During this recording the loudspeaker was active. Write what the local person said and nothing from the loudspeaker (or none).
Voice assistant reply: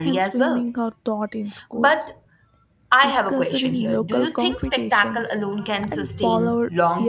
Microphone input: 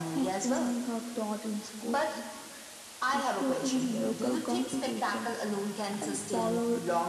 none